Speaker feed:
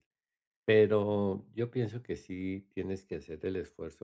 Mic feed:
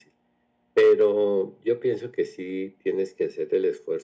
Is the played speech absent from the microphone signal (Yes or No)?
No